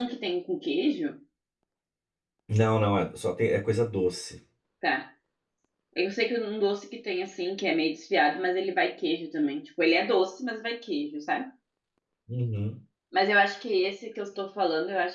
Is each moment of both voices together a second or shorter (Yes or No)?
Yes